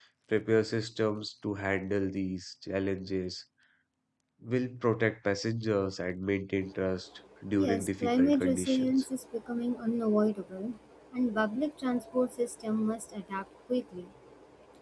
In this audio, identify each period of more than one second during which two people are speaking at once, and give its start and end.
7.6-8.9

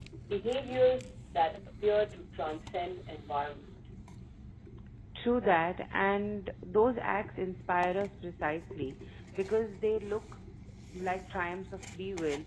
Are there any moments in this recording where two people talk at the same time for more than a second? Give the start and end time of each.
none

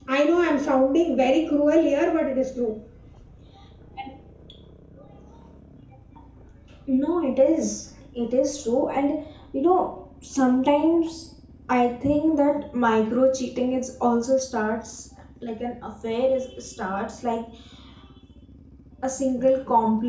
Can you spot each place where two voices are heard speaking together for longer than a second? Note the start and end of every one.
none

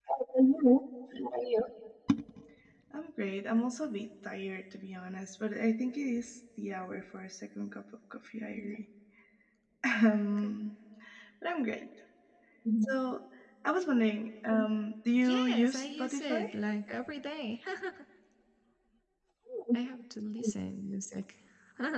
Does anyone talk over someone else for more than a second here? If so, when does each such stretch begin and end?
15.2-16.4

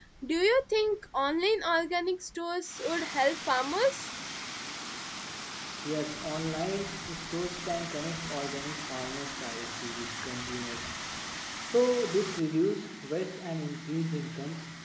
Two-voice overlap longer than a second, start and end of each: none

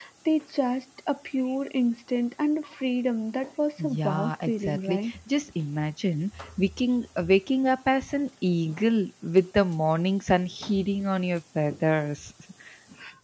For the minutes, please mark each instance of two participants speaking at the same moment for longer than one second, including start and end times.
3.8-5.1

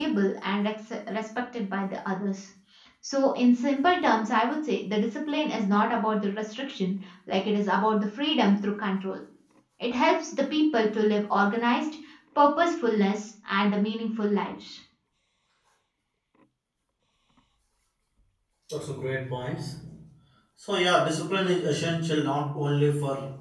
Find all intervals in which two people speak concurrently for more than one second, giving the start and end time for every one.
none

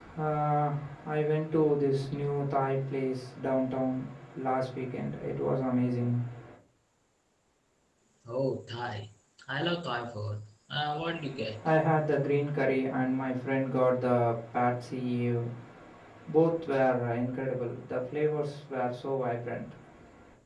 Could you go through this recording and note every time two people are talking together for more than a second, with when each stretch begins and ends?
none

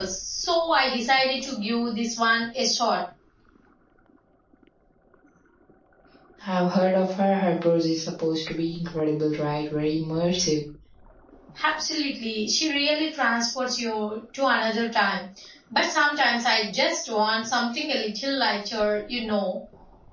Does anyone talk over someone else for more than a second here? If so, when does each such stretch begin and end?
none

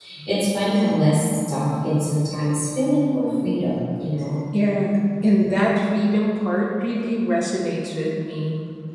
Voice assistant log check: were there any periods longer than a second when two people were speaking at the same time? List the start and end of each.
none

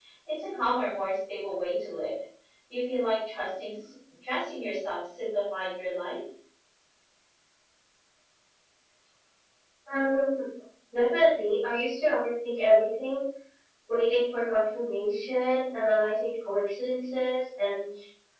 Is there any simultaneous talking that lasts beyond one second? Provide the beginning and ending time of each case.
none

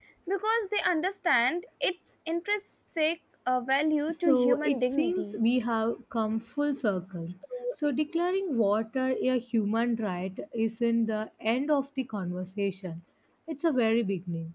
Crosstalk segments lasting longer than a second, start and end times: 4.1-5.4

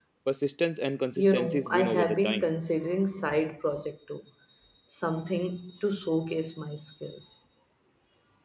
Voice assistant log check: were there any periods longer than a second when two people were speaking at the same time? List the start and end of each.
1.2-2.5

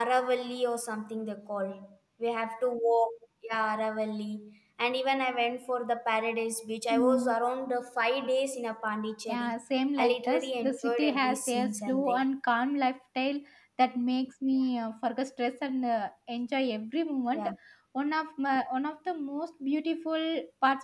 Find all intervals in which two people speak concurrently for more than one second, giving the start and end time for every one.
10.0-12.2

